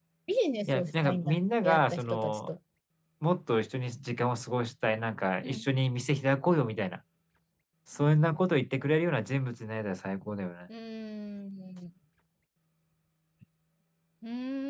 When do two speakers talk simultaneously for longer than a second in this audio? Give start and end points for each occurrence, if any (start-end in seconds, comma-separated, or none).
0.7-2.5